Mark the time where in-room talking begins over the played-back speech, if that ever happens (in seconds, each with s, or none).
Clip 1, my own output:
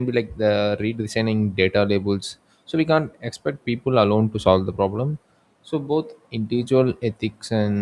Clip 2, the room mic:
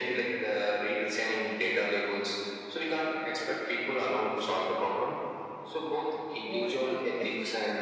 6.4 s